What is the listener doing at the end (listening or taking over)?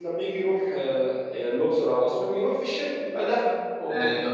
taking over